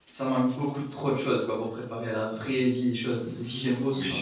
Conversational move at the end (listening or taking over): taking over